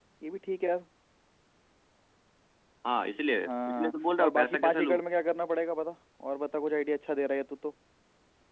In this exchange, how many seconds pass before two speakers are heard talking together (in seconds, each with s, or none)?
3.4 s